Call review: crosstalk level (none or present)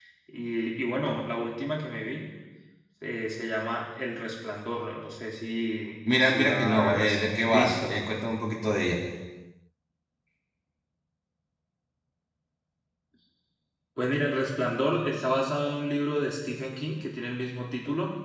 present